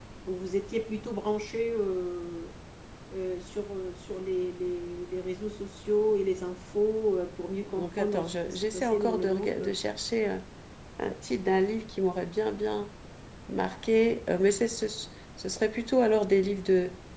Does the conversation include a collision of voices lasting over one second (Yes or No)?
Yes